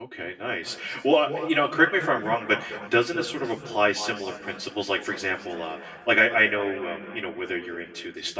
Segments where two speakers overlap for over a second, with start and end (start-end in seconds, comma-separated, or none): none